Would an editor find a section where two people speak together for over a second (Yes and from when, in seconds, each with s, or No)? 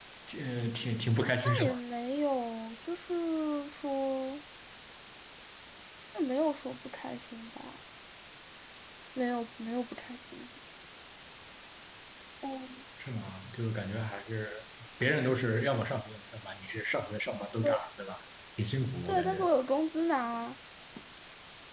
No